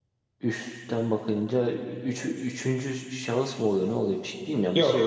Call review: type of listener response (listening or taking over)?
taking over